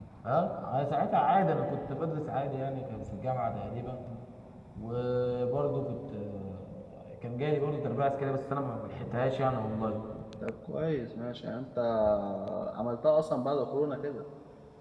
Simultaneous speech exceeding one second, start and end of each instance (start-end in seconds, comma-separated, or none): none